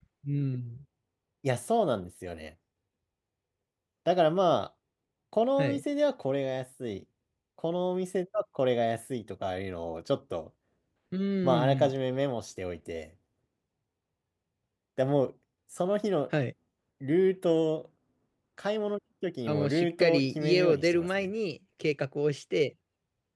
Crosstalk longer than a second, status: present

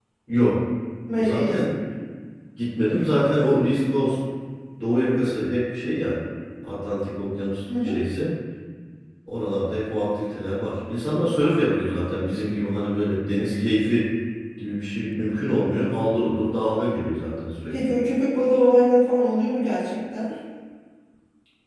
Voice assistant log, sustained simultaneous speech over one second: none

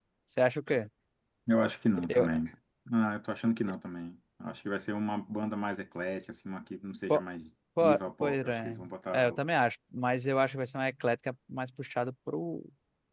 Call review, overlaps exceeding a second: present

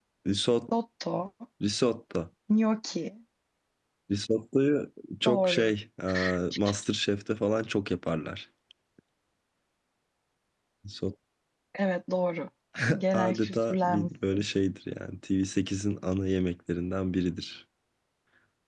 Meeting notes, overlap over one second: present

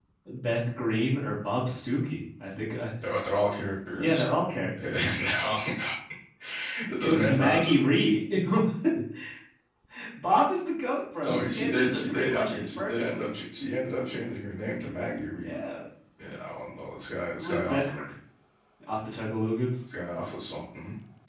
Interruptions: present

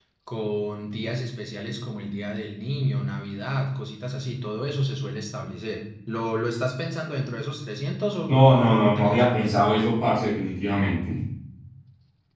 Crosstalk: present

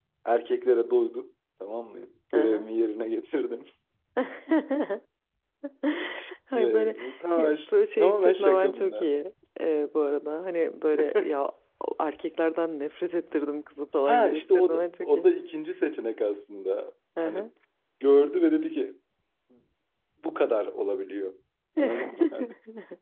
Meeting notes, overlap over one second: present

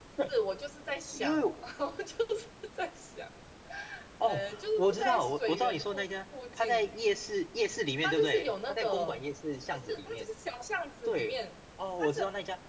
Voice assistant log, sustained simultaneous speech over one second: present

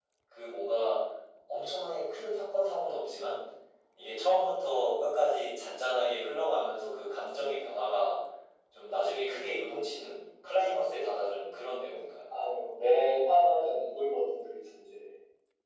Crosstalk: none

